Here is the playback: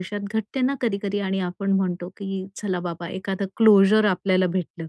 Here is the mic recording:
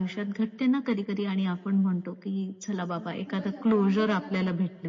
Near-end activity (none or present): present